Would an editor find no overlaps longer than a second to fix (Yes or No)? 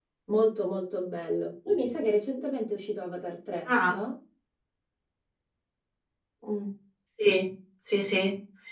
Yes